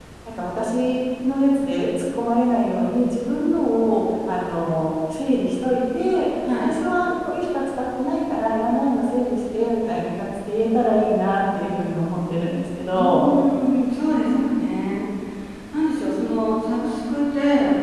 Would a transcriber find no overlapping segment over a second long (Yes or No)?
Yes